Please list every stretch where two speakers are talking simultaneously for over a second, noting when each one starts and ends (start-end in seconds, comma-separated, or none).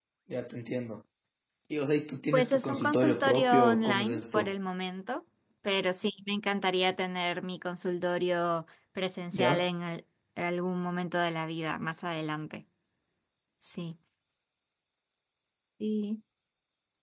2.3-4.5